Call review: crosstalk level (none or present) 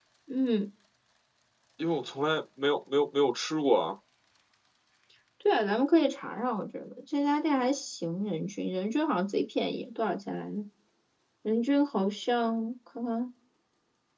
none